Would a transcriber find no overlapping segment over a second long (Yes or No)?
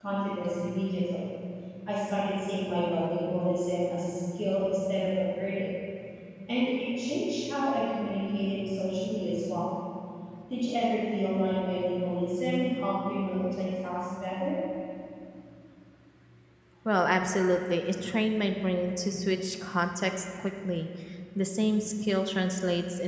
Yes